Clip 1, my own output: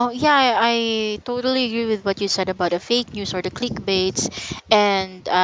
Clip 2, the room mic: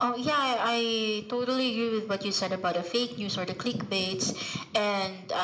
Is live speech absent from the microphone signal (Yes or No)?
Yes